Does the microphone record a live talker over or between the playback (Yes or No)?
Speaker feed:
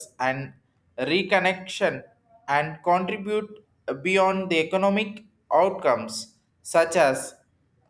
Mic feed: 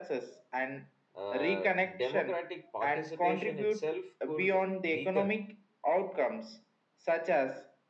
Yes